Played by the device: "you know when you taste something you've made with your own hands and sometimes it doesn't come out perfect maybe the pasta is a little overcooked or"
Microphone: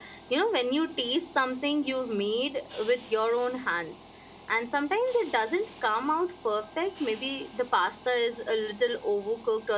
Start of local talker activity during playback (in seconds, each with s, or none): none